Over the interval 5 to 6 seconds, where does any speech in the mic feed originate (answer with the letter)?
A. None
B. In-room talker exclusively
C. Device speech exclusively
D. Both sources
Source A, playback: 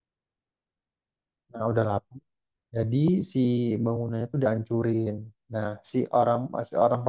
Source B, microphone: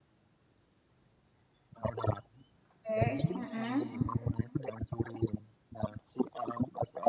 C